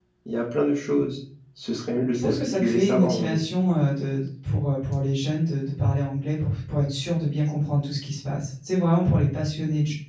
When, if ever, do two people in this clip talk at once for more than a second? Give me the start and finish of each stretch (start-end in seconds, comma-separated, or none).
2.1-3.4